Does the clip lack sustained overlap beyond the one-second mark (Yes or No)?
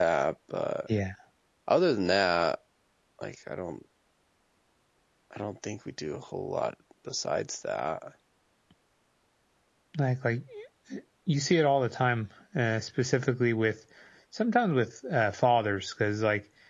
Yes